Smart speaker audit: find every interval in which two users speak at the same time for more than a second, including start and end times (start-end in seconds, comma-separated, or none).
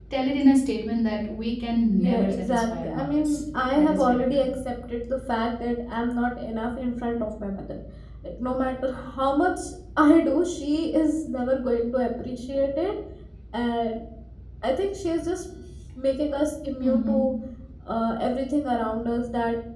2.0-4.5